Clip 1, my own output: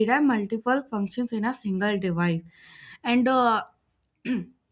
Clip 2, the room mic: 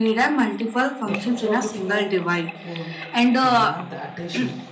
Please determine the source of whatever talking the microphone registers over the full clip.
both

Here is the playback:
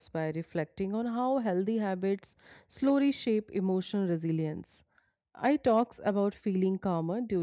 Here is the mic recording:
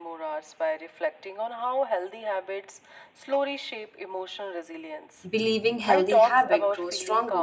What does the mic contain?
both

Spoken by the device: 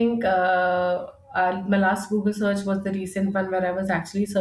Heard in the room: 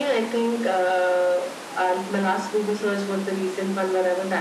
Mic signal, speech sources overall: echo only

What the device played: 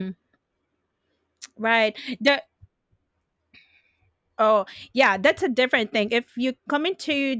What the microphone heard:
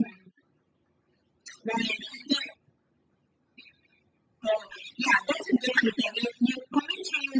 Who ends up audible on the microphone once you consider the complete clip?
echo only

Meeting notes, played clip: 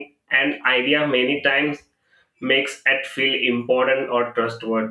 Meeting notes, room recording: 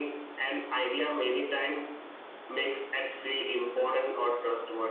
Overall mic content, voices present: echo only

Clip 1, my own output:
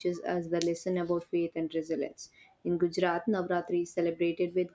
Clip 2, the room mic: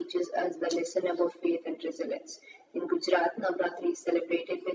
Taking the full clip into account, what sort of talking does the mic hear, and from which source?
echo only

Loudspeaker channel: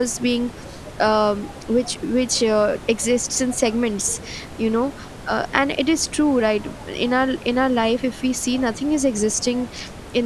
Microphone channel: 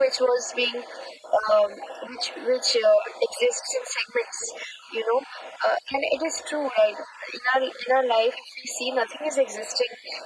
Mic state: echo only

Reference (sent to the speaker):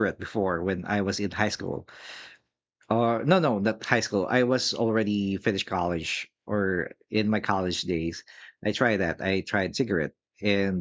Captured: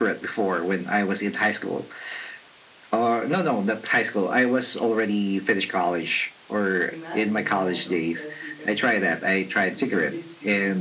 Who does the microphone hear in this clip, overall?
both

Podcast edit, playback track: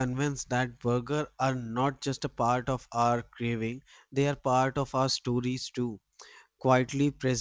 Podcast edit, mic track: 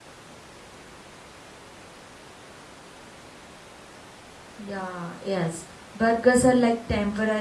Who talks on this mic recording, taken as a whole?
user only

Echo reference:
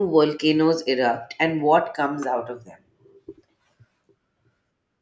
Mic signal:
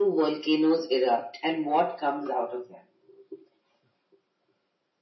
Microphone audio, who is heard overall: echo only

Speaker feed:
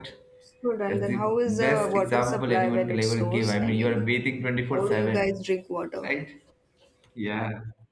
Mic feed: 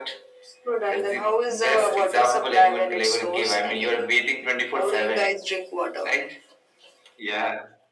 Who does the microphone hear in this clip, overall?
echo only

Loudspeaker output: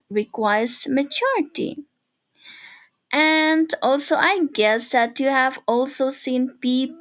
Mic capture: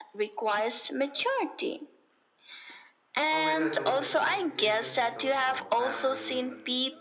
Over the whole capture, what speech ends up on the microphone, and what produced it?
both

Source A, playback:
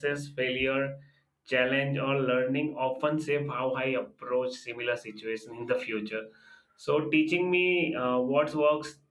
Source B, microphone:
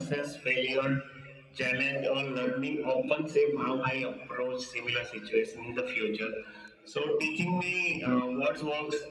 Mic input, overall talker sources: echo only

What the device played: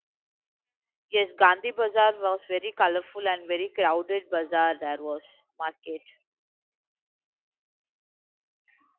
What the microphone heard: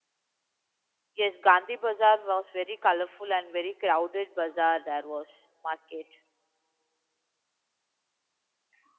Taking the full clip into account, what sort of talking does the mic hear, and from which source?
echo only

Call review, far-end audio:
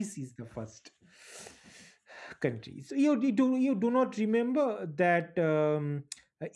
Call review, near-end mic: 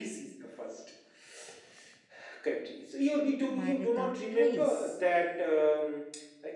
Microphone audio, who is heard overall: both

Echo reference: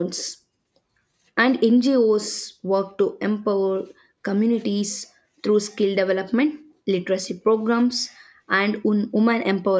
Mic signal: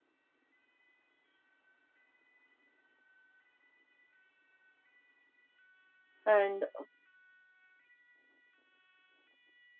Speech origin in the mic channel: user only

